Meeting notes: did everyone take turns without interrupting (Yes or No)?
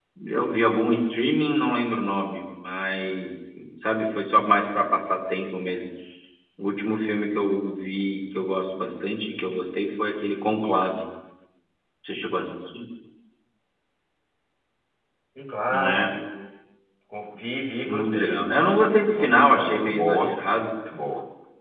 No